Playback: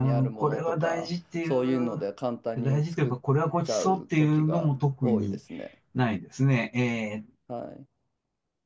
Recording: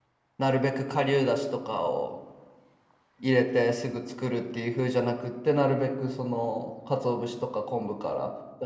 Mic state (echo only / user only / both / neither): user only